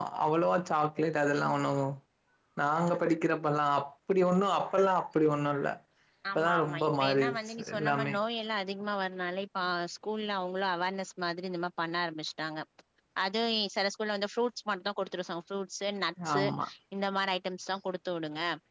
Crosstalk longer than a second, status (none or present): present